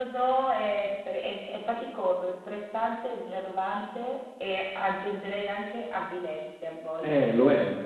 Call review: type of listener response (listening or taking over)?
taking over